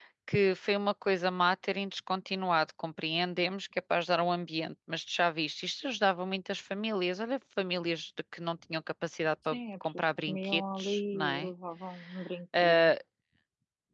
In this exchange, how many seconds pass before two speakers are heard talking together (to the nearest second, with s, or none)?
10 s